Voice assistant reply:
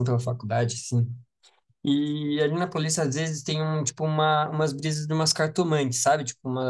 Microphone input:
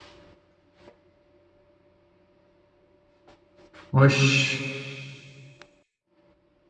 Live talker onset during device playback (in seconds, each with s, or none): 3.9 s